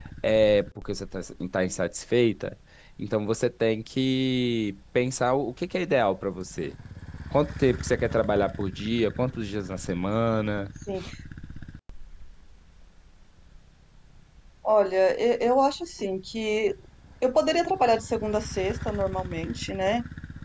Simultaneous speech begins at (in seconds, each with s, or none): none